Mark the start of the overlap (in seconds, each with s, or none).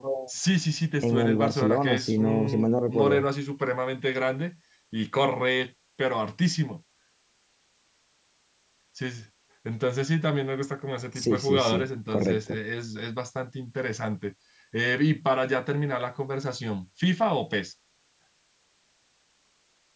1.0 s